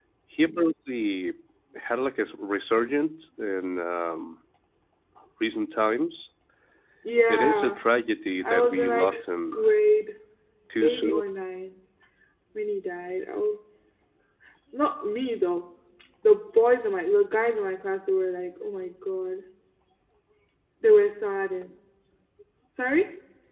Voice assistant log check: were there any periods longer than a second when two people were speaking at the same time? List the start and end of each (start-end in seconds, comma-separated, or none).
8.4-9.7